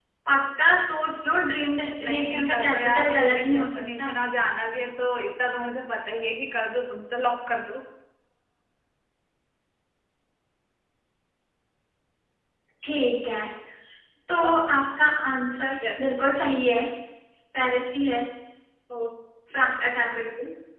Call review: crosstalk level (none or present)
present